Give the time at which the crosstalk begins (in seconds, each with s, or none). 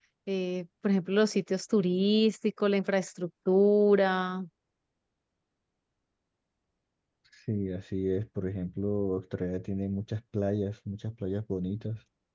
none